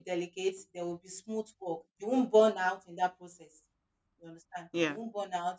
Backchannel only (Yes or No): Yes